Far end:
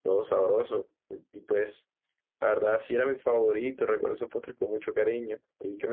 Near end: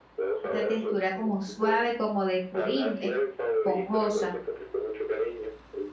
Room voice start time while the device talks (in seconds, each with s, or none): 0.4 s